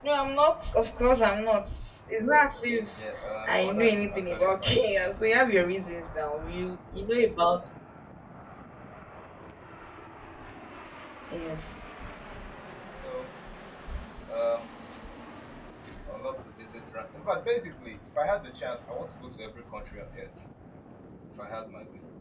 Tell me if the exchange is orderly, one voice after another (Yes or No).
No